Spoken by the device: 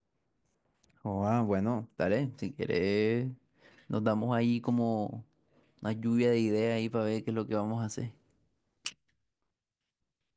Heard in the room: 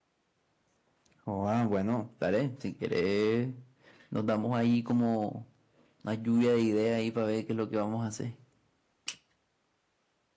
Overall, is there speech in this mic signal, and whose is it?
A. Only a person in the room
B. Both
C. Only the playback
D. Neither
C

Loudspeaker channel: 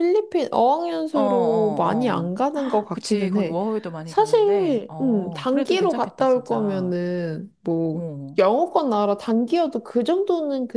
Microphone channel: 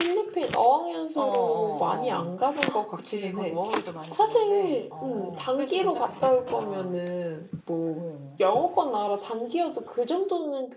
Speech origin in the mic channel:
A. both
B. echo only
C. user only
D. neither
B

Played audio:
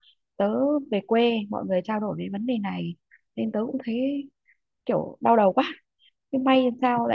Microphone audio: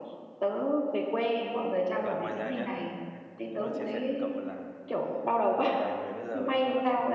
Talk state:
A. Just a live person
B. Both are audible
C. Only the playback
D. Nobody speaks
B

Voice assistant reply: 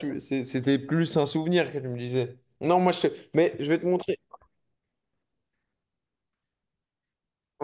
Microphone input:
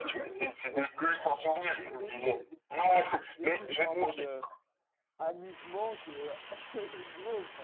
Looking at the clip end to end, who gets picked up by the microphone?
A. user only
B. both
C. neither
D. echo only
B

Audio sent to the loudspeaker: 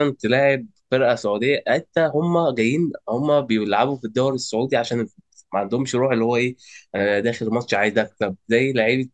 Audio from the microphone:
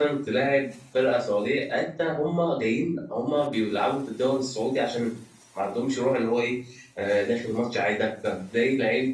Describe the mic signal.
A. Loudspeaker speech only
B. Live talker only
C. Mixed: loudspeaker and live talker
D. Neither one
A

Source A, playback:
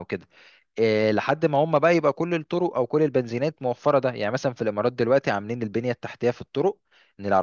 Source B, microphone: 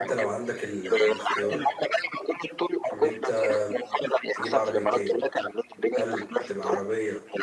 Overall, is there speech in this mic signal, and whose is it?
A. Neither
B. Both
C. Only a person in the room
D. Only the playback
B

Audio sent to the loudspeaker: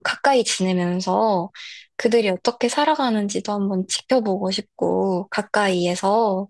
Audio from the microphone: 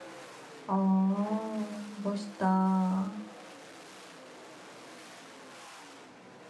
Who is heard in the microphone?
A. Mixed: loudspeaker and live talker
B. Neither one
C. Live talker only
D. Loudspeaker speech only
C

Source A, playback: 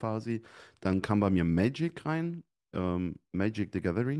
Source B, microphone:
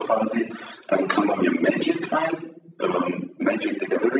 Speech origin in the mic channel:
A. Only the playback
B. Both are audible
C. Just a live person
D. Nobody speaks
A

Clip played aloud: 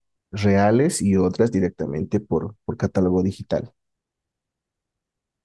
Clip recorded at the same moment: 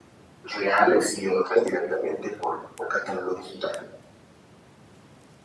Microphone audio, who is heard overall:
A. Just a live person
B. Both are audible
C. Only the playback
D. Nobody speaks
C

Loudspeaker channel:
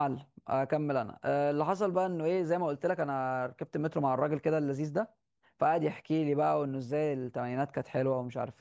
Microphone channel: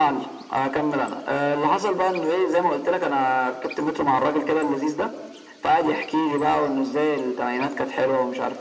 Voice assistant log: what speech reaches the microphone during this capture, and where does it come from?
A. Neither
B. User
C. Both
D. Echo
D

